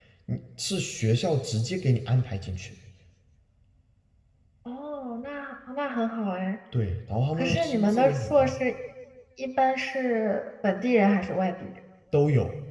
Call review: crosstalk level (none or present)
present